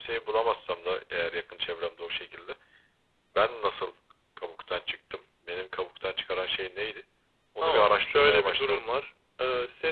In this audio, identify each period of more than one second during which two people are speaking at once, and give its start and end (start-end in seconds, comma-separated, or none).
7.6-8.9